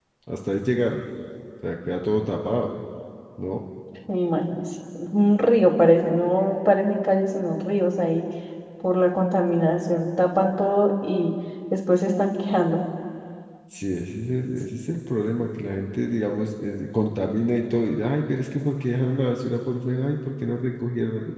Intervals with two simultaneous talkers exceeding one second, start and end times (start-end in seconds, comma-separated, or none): none